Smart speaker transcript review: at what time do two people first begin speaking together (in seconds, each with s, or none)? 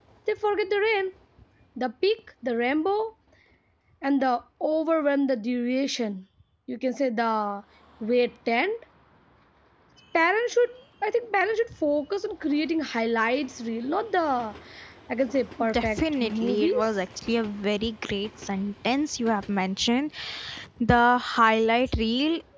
15.6 s